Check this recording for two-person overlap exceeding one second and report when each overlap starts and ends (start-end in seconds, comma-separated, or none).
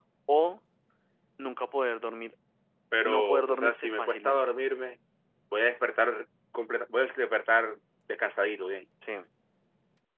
3.0-4.4